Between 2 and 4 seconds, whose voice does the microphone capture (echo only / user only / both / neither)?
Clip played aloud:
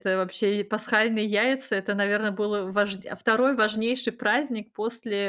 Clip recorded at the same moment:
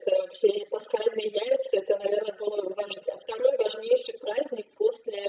echo only